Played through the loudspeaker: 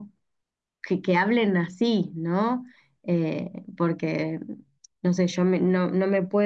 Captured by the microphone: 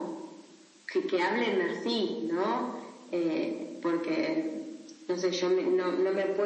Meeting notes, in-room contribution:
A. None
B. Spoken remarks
A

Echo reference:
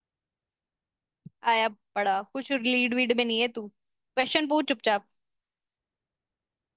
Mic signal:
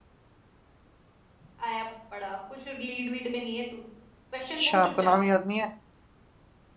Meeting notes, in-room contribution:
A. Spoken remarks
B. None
A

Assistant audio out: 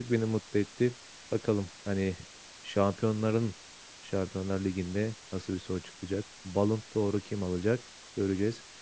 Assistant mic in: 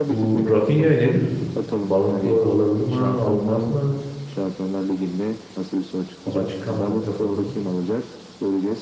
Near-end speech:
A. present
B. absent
A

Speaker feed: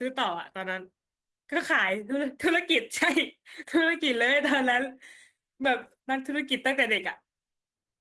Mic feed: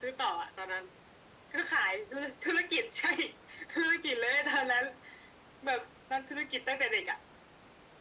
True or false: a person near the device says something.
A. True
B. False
B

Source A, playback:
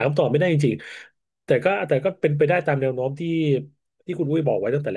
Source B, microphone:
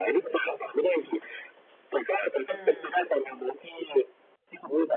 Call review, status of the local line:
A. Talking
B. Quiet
A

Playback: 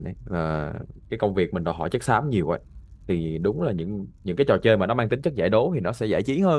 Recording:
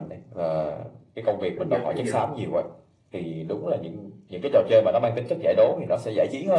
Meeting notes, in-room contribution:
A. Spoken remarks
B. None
A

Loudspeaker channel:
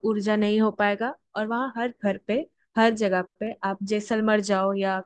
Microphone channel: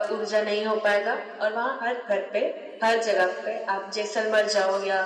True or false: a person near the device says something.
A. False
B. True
A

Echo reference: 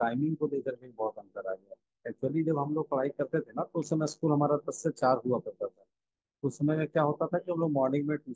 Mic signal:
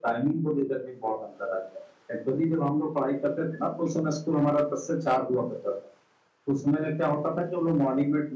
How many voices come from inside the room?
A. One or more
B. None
B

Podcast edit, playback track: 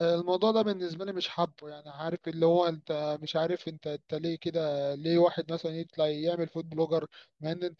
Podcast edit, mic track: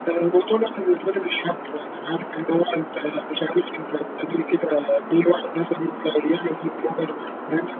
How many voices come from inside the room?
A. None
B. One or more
A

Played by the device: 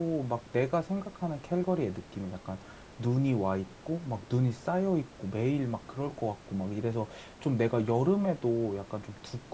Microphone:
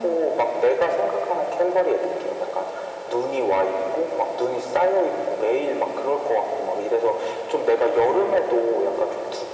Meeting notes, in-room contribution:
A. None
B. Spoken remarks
A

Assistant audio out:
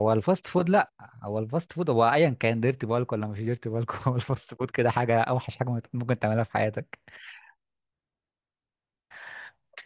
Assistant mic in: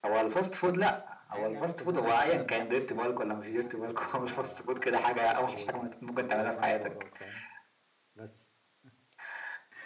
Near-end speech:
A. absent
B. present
B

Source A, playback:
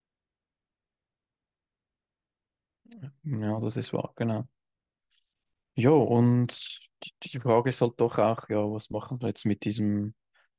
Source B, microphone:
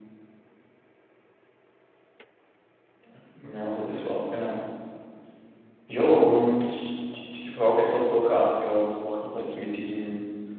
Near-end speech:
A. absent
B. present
A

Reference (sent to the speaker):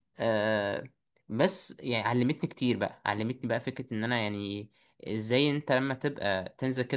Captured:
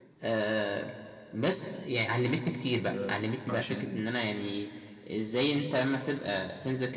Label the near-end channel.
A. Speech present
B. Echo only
A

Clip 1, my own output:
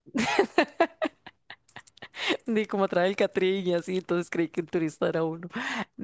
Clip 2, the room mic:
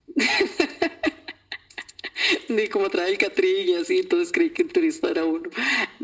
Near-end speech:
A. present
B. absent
B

